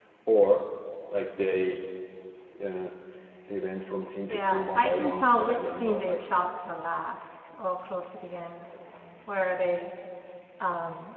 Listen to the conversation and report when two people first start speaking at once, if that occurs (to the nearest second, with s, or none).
4 s